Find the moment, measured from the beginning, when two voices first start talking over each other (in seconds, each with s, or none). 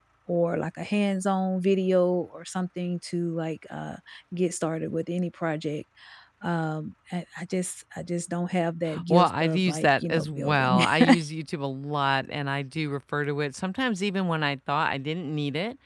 8.8 s